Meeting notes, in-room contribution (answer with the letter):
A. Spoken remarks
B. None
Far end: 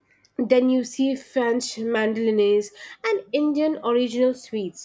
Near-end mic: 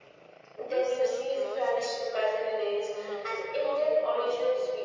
A